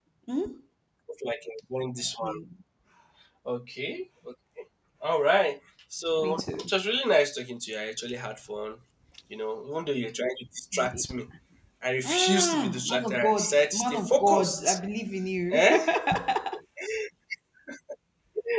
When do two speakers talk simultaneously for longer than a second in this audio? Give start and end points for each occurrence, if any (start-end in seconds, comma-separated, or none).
12.1-14.8